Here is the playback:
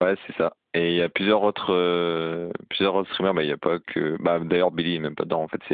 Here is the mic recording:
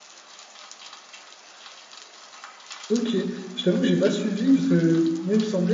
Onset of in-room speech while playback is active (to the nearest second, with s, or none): 3 s